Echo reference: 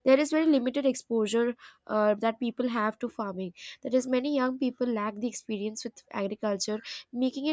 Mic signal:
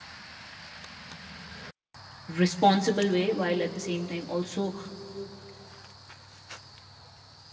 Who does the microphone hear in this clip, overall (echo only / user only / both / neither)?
user only